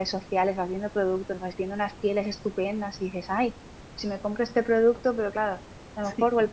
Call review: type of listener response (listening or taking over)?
listening